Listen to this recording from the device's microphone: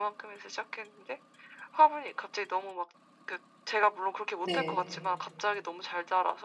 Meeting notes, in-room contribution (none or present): present